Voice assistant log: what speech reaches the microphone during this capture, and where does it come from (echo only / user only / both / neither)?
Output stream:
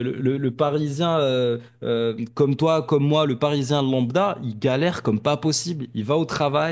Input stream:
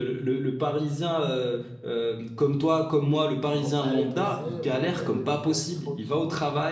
both